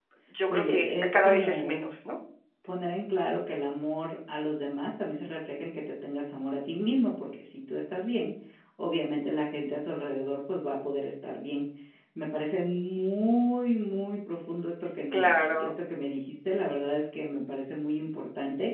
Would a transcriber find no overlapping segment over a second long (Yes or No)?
No